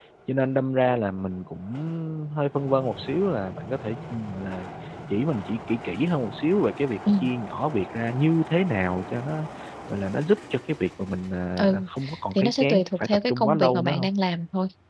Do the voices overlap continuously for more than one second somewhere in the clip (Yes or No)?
Yes